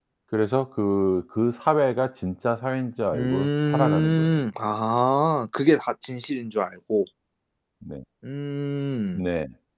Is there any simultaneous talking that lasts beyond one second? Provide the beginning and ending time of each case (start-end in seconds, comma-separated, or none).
3.1-4.4